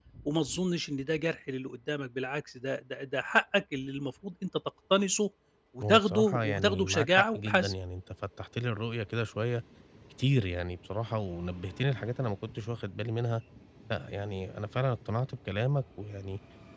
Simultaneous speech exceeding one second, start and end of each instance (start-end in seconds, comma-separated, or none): 5.8-7.7